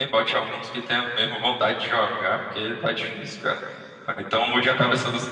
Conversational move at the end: listening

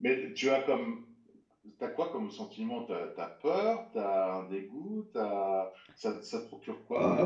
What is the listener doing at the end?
taking over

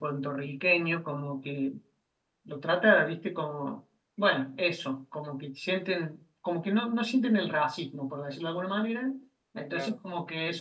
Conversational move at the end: listening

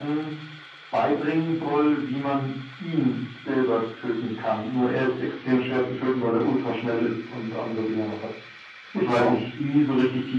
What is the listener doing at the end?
listening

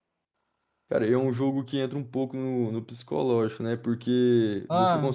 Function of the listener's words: listening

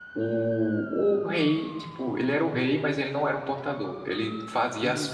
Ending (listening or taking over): listening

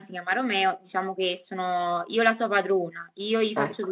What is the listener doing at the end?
listening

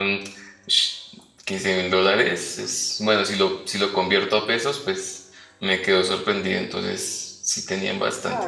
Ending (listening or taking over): taking over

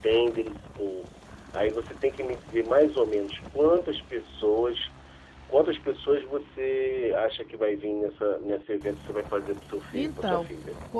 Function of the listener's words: taking over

